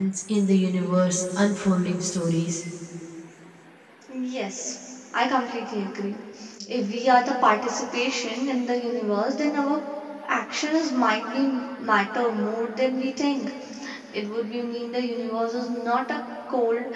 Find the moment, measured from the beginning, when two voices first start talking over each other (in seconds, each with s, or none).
none